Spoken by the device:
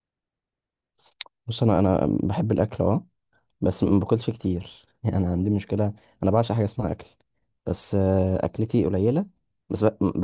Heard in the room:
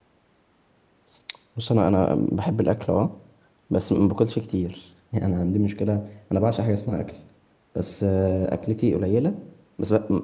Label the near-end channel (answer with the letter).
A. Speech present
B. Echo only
B